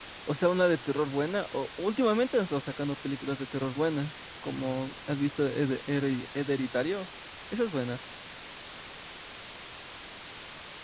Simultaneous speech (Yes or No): No